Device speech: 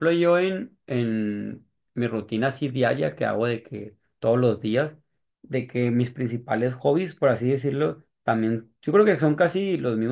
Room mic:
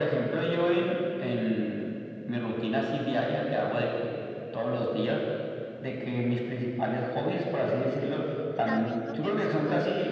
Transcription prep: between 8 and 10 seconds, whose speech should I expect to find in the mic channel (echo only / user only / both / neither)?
both